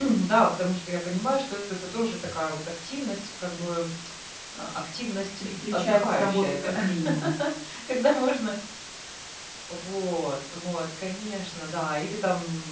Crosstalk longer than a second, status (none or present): present